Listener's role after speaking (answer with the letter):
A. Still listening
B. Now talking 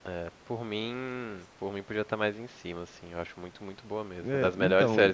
B